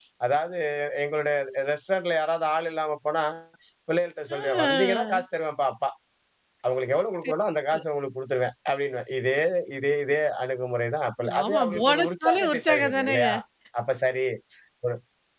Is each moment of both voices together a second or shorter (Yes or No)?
No